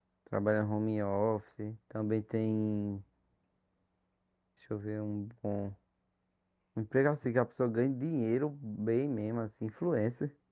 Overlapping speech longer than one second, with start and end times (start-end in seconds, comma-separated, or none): none